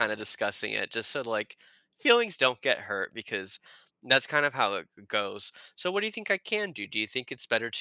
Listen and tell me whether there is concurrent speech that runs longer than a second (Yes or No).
No